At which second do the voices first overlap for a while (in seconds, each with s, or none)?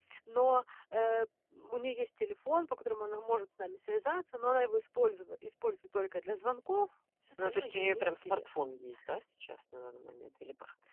7.4 s